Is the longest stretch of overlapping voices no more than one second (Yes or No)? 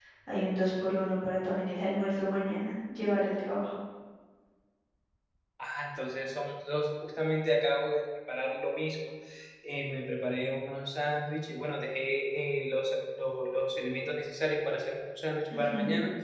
Yes